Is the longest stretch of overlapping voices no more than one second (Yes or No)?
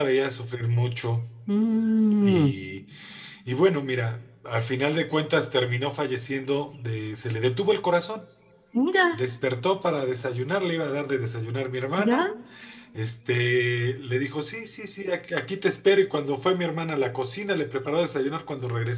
Yes